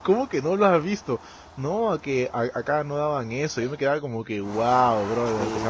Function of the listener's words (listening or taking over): taking over